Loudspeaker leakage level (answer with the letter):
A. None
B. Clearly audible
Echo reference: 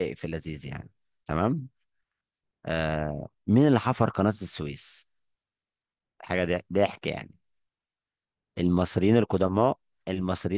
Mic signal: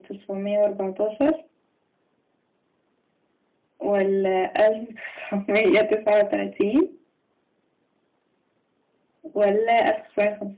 A